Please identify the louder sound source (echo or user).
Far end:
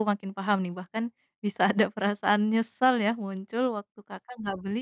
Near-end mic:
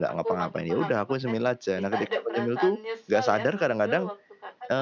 user